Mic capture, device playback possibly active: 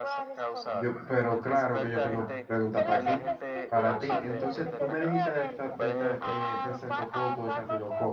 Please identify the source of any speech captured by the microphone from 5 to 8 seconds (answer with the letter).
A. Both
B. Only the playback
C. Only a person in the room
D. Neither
A